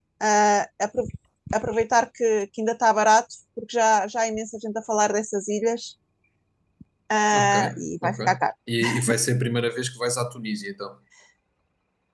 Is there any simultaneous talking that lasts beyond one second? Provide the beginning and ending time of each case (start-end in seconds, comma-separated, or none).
none